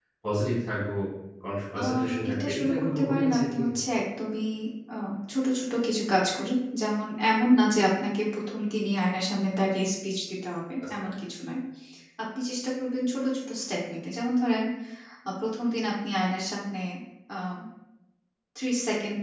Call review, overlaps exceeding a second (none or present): present